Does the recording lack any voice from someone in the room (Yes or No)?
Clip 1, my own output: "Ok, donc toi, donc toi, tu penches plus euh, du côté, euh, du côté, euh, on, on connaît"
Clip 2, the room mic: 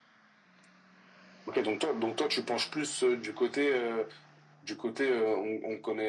Yes